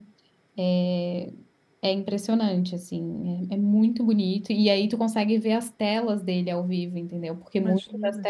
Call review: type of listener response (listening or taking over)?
listening